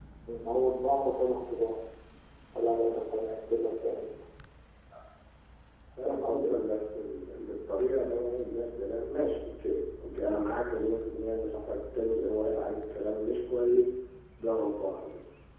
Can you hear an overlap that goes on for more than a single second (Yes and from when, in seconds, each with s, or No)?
No